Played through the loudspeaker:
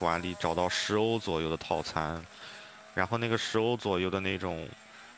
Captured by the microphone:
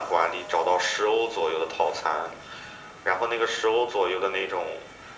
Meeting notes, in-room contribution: none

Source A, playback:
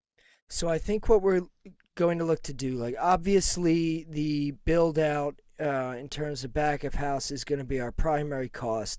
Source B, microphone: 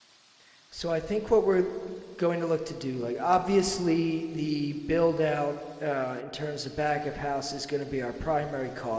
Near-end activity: none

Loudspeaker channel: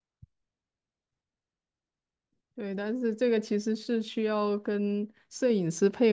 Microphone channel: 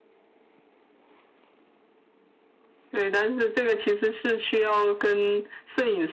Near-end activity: none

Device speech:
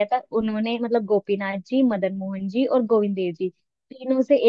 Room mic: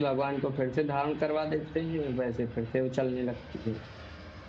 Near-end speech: present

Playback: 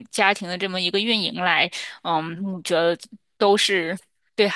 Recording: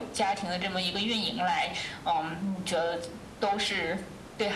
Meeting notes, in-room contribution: none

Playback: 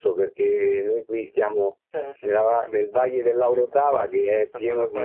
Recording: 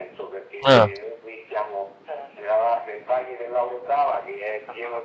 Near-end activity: present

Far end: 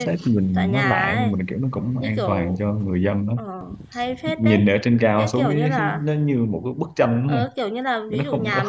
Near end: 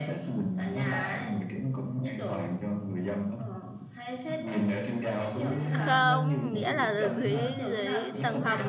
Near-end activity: present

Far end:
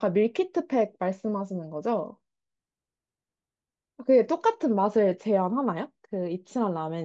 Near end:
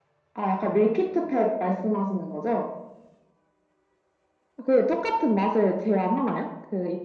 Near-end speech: none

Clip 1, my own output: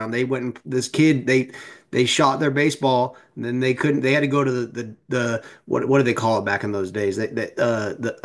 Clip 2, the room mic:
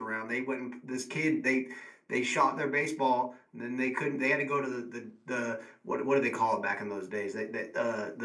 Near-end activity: none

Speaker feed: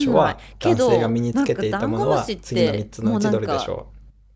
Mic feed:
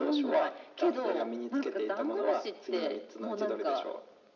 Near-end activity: none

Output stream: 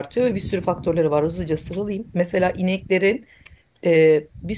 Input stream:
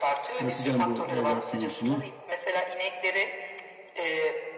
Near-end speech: present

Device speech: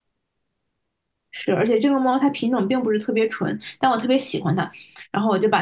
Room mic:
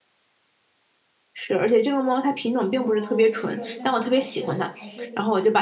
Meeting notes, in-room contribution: present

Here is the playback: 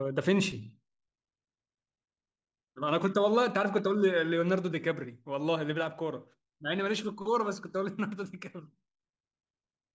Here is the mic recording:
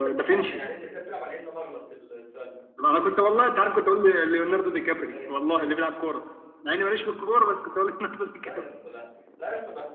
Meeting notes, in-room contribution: present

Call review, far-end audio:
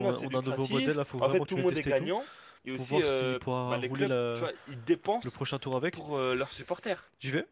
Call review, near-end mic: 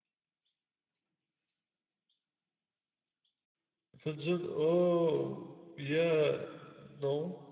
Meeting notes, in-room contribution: present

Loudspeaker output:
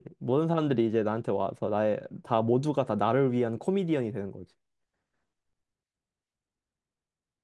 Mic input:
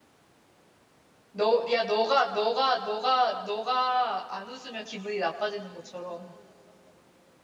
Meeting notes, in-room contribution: present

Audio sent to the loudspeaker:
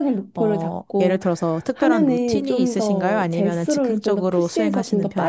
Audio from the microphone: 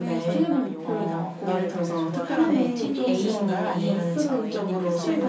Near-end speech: present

